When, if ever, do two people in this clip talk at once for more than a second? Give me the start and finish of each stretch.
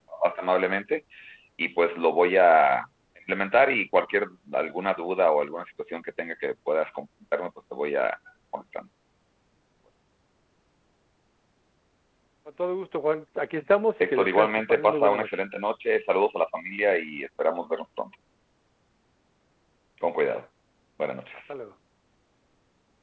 14.0-15.3

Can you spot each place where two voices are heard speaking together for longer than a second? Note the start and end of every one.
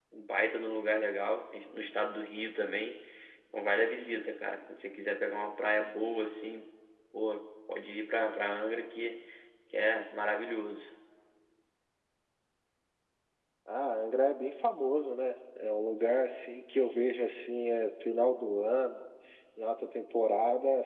none

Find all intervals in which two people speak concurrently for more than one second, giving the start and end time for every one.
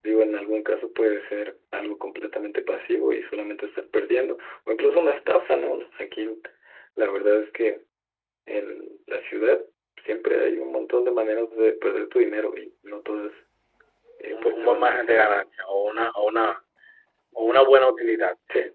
14.3-15.5

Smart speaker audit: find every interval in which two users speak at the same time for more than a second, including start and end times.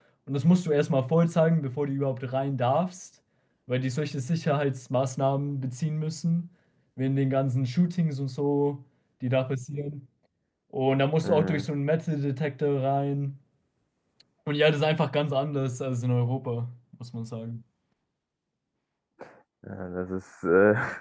none

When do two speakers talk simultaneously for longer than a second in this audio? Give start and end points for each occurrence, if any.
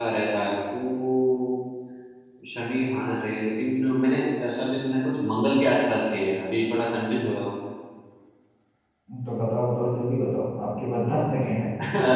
none

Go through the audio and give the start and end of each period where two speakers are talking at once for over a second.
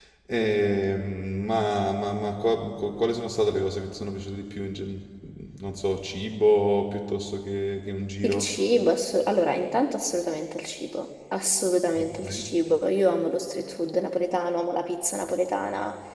none

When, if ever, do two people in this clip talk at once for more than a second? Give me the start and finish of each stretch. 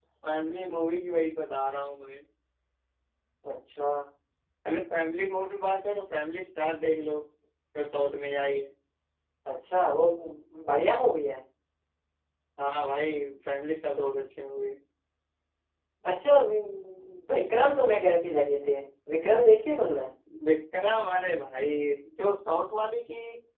none

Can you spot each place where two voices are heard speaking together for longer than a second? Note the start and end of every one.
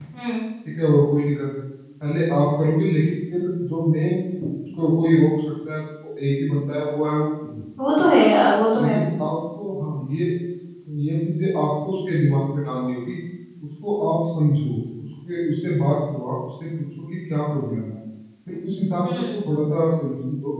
none

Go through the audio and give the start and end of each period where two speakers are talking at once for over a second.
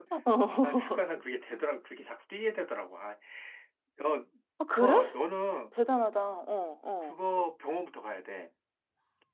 none

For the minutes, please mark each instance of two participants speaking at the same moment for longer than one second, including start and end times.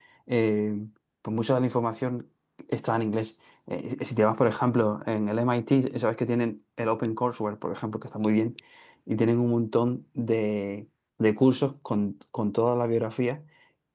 none

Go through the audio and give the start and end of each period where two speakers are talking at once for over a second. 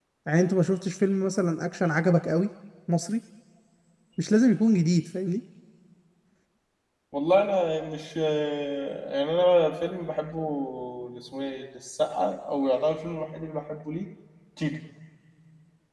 none

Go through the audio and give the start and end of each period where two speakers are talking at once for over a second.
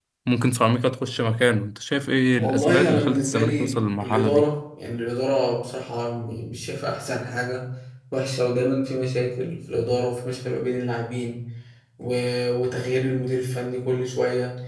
2.4-4.5

